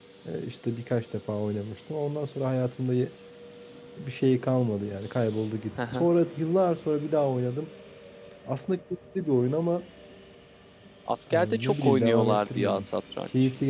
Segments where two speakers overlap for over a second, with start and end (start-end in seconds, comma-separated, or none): 11.3-12.8